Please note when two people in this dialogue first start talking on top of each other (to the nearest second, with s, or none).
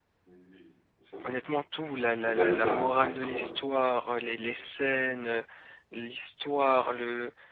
2 s